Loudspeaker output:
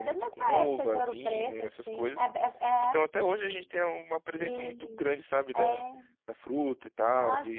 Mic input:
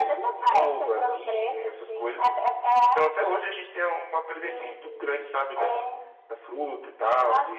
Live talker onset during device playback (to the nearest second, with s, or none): none